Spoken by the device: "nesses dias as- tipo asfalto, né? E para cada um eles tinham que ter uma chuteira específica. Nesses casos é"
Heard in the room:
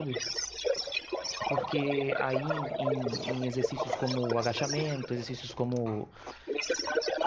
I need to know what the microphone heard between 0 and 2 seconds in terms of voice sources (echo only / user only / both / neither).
both